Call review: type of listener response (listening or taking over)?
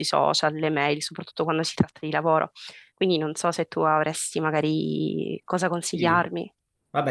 taking over